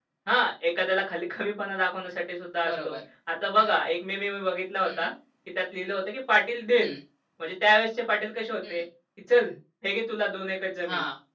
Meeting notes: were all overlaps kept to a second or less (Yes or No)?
Yes